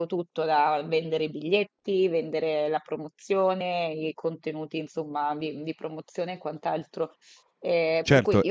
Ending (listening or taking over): taking over